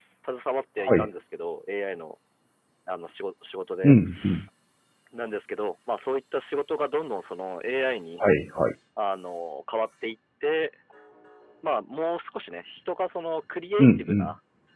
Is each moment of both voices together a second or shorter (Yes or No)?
Yes